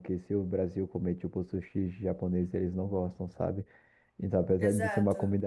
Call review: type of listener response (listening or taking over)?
listening